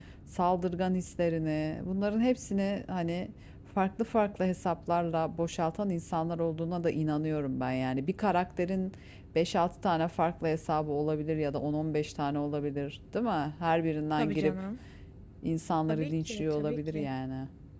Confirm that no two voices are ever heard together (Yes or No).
No